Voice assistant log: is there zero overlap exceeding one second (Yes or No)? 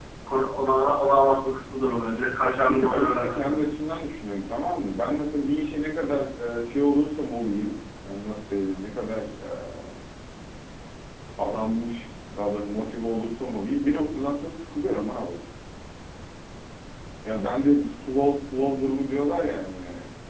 No